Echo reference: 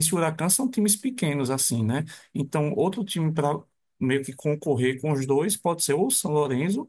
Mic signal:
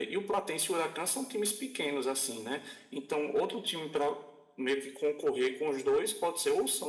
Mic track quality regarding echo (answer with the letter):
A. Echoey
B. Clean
A